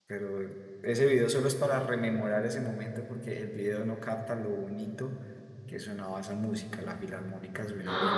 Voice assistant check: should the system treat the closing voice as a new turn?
Yes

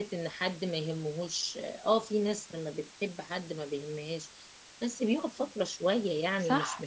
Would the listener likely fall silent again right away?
Yes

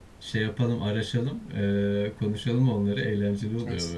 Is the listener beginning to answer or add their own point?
Yes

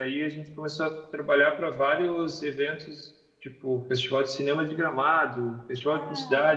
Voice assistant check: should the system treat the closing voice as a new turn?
No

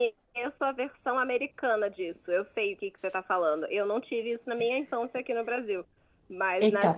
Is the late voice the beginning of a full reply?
No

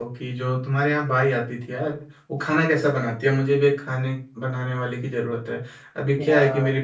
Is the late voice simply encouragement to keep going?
Yes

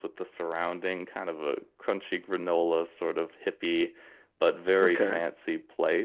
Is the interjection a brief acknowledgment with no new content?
Yes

